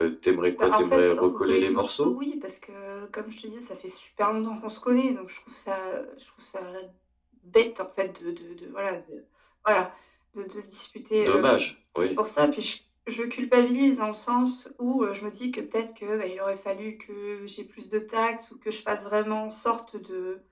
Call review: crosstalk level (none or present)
present